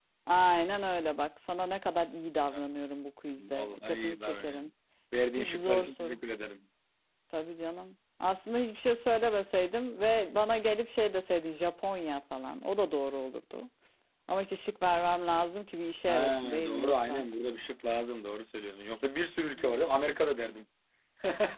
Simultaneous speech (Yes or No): Yes